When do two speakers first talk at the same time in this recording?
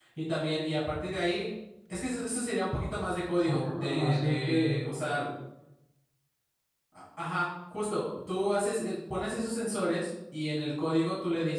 3.4 s

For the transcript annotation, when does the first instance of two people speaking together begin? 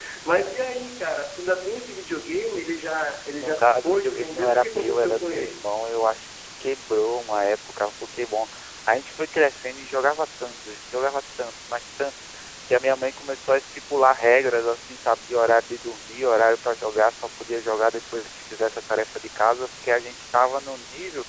3.4 s

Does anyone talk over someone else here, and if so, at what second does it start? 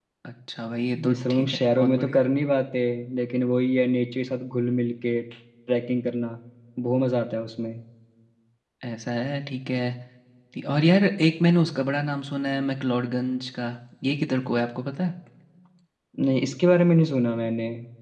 1.1 s

